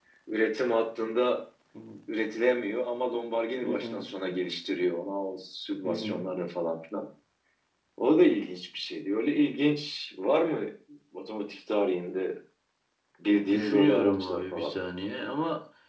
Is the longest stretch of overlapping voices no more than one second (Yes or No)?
No